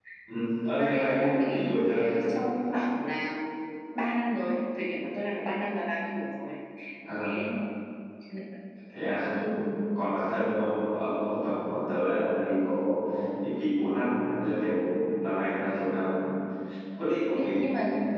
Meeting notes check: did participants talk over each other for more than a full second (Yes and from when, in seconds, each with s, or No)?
Yes, from 0.8 s